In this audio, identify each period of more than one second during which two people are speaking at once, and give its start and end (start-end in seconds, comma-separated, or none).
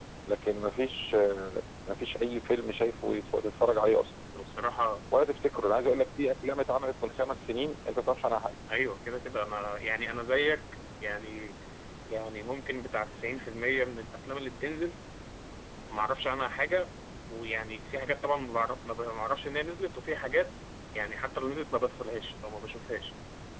none